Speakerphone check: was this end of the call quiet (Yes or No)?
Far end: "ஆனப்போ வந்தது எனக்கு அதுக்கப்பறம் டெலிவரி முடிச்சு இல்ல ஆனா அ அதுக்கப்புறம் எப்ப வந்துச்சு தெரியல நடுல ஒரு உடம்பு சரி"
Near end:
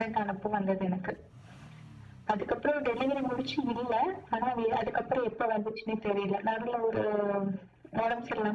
Yes